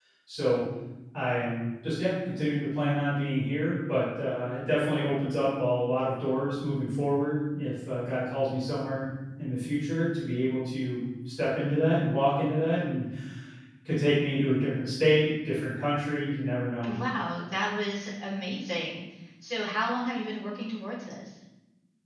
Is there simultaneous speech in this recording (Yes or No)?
No